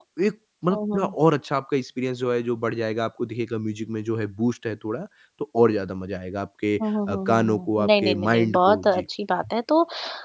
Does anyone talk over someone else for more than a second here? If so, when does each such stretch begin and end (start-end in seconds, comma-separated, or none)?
7.1-9.0